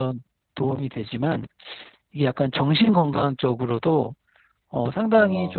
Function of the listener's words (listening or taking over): listening